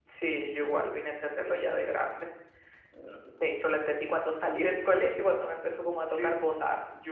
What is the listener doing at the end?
taking over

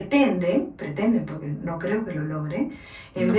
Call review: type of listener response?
listening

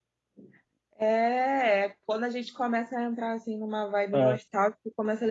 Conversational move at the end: listening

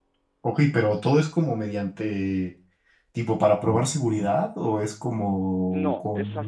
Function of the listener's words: taking over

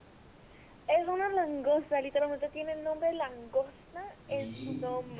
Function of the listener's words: taking over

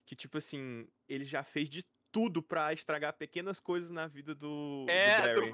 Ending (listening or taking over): taking over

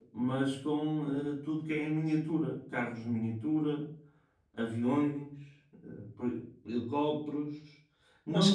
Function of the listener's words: listening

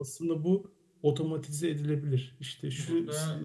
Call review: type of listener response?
listening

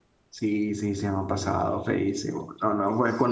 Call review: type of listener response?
listening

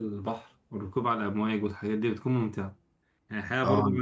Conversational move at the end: listening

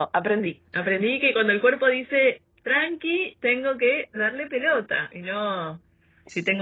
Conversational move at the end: listening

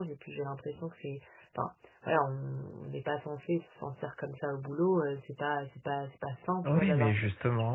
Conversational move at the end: taking over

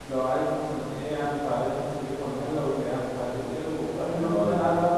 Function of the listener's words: listening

